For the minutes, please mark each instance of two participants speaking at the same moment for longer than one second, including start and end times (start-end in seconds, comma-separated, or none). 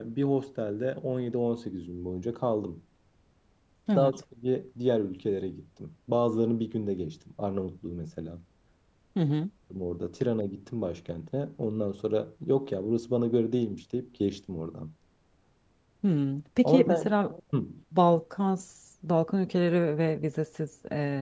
none